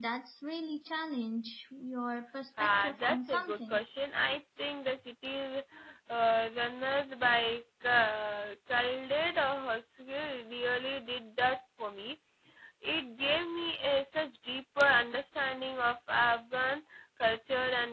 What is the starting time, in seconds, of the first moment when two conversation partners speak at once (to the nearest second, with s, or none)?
3 s